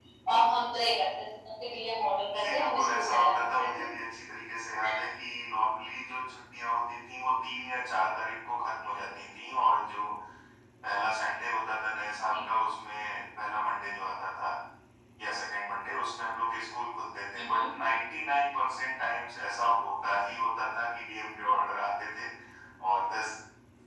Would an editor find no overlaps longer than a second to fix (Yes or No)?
No